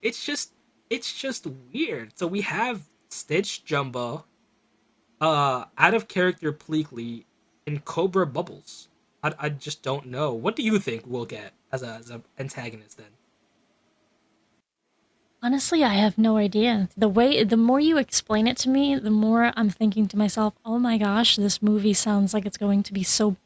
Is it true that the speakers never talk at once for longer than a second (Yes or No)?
Yes